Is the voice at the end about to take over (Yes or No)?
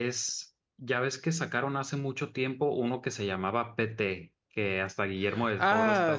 Yes